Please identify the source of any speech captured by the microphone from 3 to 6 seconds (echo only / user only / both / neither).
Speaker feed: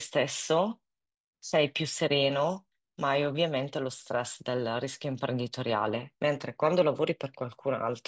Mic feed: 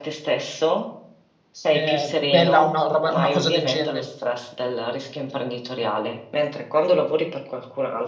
both